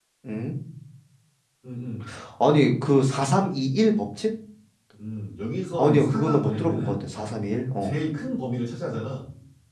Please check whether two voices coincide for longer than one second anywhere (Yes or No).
Yes